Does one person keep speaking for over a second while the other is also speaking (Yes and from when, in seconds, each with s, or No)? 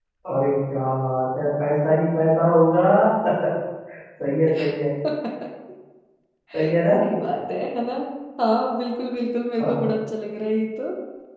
No